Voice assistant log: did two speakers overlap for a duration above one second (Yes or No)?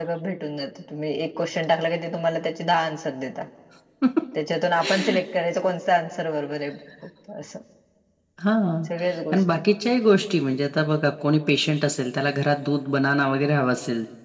No